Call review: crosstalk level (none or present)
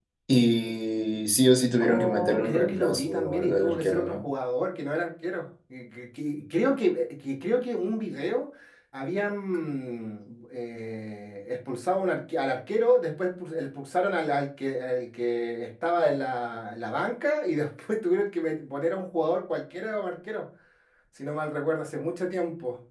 present